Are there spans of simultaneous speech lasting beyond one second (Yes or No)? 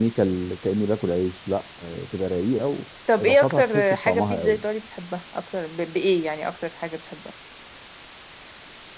Yes